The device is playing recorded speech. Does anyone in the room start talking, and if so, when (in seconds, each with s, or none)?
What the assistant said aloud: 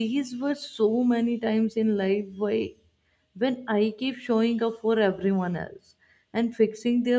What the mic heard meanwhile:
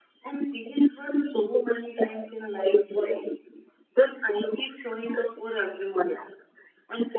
none